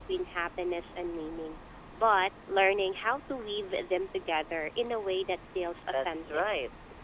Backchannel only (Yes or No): No